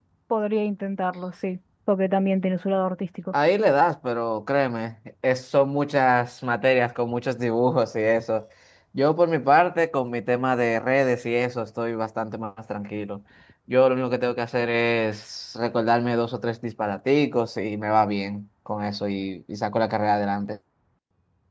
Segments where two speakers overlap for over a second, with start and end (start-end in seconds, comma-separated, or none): none